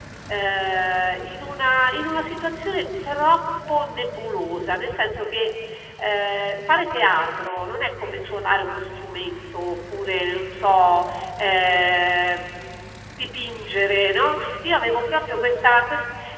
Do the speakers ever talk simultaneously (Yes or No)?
No